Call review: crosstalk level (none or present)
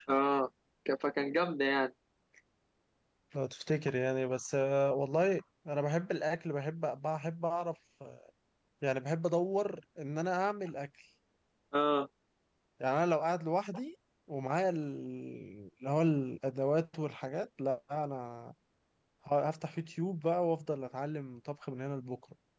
none